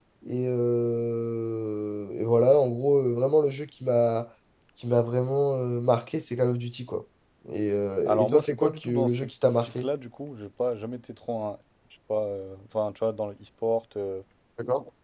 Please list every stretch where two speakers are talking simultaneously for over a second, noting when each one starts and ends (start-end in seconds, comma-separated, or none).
8.1-9.9